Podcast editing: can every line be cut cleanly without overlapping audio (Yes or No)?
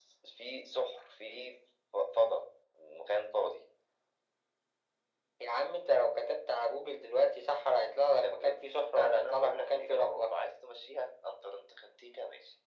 No